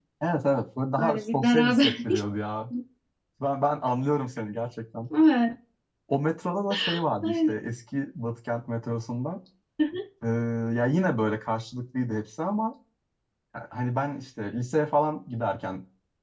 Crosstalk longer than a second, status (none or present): present